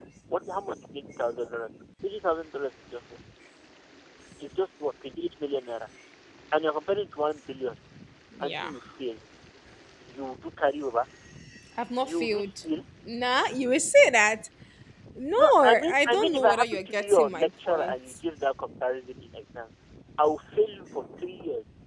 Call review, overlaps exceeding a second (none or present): present